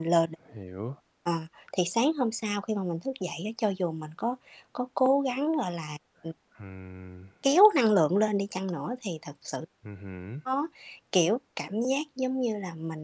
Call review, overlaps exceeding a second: none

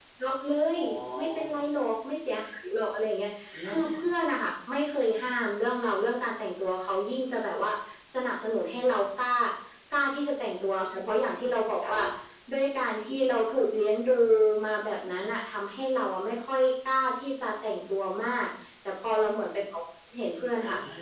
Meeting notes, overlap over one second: none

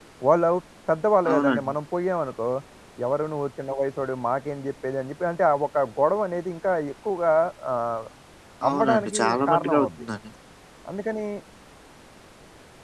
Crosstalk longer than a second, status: present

